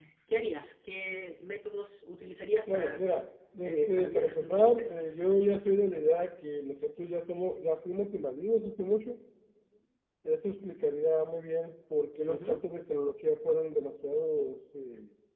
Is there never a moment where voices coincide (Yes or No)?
No